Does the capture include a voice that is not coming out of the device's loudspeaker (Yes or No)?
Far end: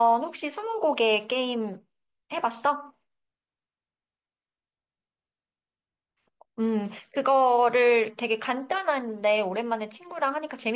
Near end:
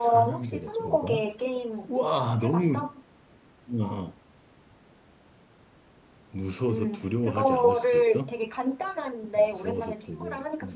Yes